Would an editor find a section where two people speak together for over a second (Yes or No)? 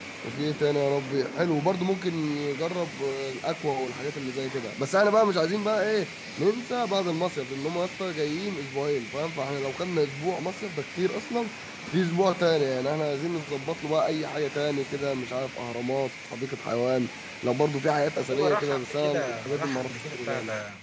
Yes